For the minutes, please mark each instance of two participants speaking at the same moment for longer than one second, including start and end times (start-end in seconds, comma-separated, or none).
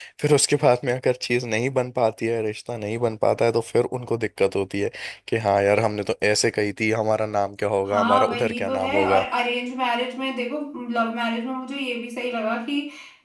7.9-9.2